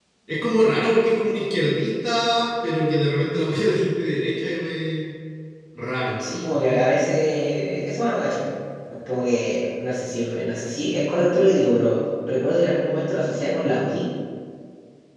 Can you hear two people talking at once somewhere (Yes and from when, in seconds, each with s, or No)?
No